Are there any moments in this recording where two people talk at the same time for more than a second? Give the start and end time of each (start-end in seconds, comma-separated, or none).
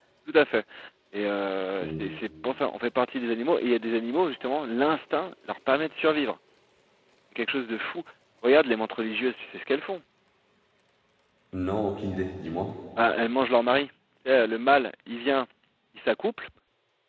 none